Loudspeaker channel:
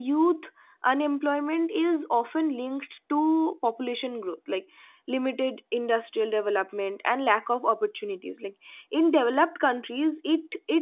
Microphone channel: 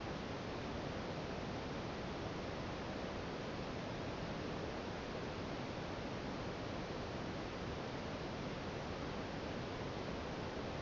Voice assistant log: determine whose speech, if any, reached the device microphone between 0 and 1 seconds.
neither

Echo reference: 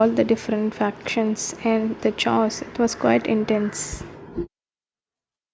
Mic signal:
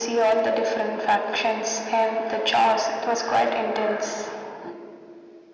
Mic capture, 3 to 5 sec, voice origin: echo only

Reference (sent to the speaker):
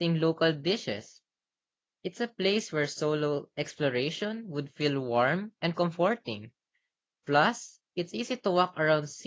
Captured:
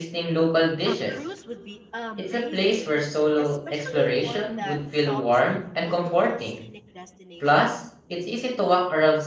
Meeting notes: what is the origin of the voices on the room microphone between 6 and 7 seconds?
both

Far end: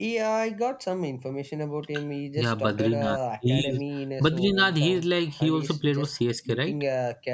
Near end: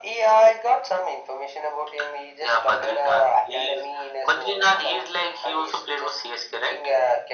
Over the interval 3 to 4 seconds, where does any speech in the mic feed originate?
echo only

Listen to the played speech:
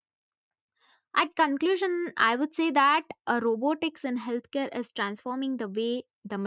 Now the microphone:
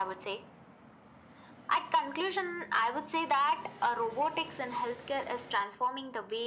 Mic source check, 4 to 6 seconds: echo only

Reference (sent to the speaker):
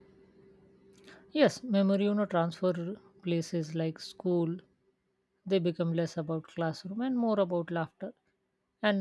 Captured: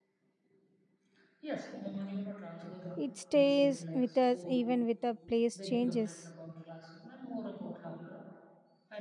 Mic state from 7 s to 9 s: echo only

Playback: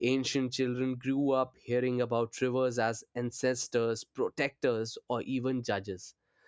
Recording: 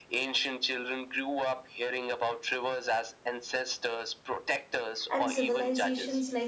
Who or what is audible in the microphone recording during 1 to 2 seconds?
echo only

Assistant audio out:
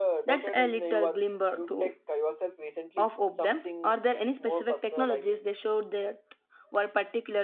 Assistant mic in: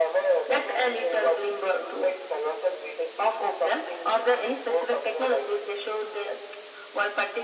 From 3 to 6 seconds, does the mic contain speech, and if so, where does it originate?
echo only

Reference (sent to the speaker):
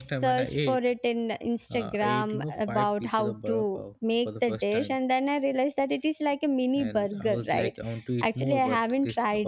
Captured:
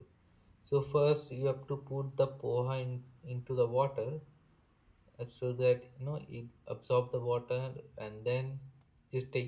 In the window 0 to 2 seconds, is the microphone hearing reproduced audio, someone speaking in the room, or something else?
user only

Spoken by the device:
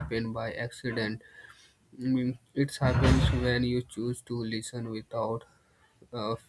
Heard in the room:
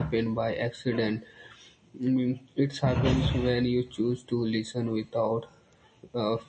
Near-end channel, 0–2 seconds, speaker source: echo only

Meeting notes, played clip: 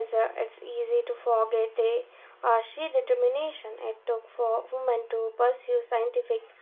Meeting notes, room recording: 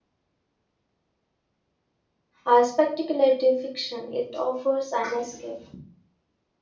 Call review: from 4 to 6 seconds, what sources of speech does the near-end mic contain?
user only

